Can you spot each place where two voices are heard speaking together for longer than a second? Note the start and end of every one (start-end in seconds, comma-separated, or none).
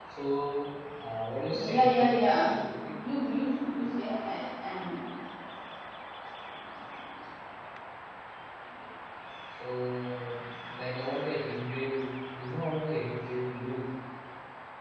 1.5-2.9